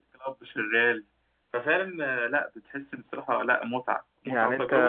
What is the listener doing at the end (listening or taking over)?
taking over